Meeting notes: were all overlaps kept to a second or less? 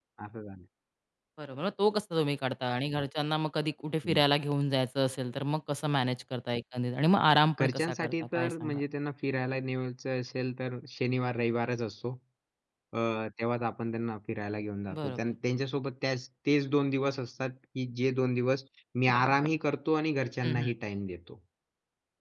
No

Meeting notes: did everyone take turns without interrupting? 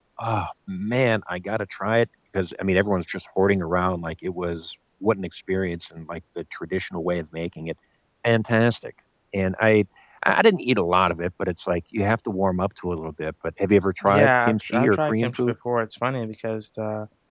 No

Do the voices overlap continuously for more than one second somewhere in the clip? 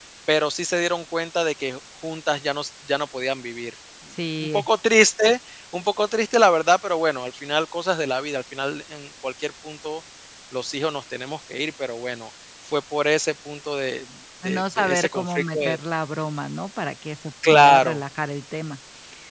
Yes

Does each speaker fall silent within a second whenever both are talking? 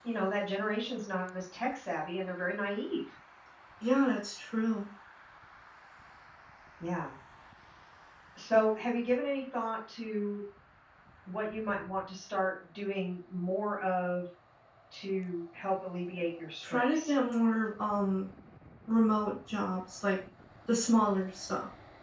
Yes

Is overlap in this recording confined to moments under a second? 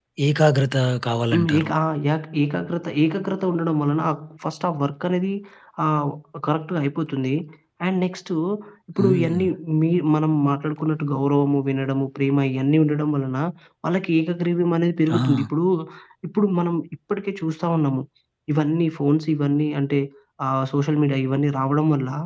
Yes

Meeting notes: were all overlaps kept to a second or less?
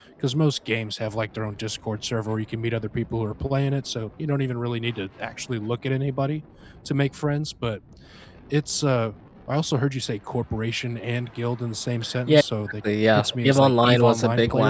No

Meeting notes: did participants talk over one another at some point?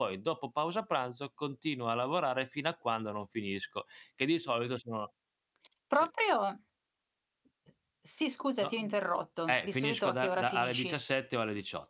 Yes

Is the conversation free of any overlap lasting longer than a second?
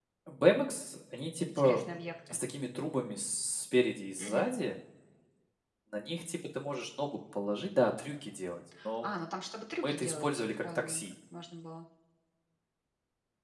No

